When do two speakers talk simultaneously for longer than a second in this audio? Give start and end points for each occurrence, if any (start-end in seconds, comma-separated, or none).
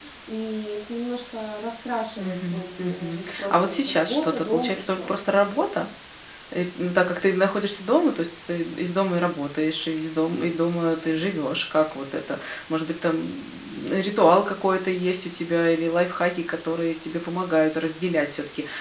2.2-5.2